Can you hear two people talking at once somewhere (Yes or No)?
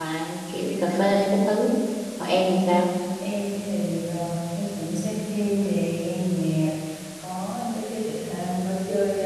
No